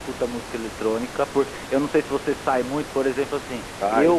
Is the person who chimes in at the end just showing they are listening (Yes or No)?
Yes